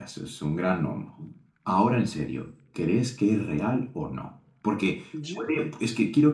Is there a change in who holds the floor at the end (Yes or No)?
No